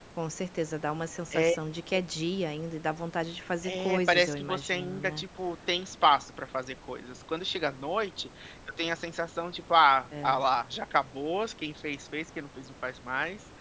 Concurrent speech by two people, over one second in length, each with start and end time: 3.6-5.2

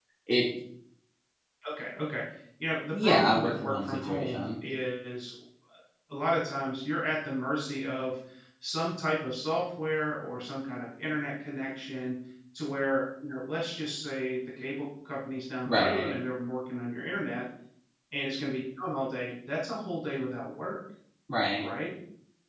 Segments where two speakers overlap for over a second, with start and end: 2.9-4.5

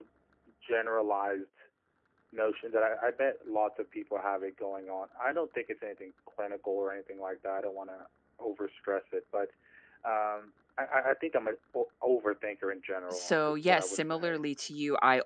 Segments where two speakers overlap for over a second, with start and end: 13.1-14.4

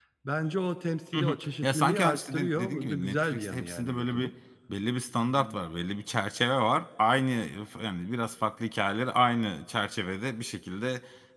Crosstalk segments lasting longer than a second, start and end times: 1.1-4.3

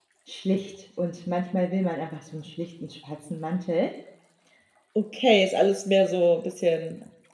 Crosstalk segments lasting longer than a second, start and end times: none

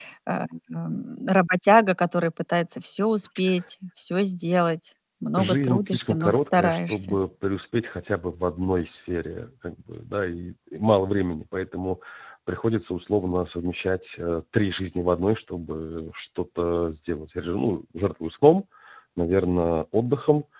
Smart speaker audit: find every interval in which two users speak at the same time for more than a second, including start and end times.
5.4-7.2

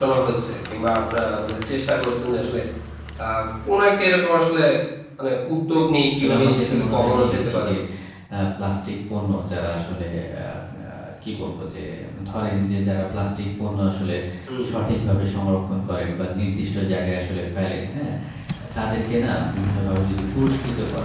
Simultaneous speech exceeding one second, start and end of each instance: 6.1-7.7

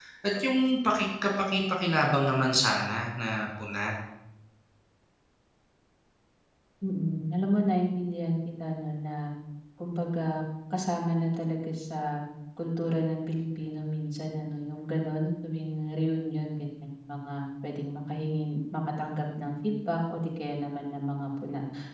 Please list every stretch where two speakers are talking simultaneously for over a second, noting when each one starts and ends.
none

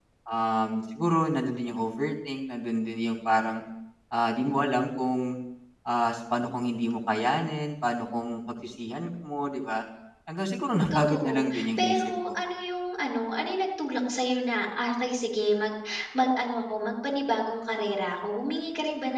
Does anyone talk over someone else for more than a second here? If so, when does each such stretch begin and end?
10.9-12.1

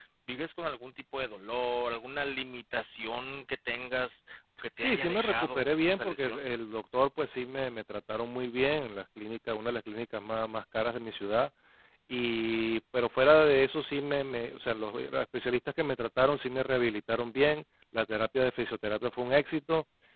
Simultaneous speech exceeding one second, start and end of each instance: 4.8-6.4

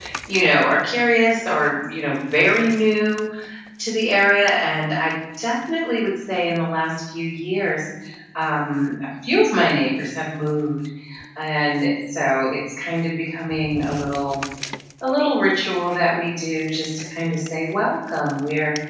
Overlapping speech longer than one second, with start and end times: none

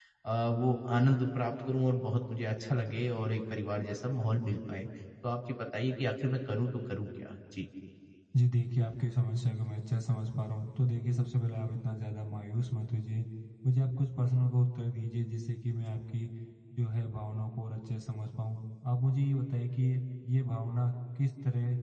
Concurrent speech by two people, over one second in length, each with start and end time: none

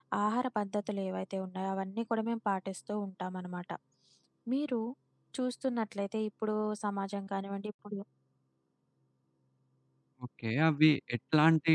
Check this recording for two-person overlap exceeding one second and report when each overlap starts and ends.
none

